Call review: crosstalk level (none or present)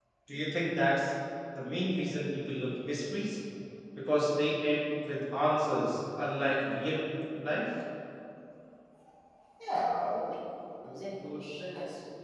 none